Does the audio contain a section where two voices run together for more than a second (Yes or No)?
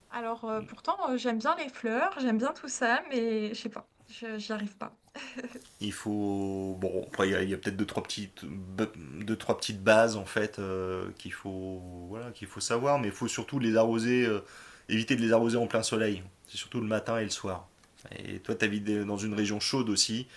No